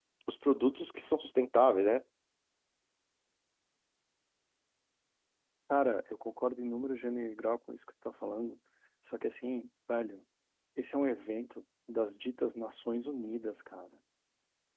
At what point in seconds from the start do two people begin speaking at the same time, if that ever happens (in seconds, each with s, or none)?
none